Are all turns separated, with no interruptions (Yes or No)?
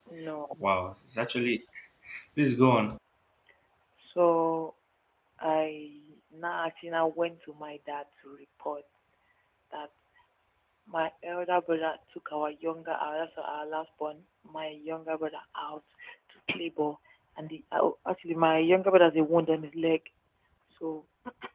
Yes